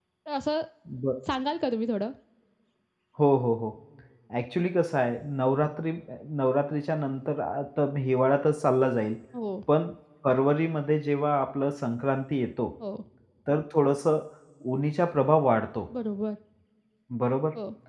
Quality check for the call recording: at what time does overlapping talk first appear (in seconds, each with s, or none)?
none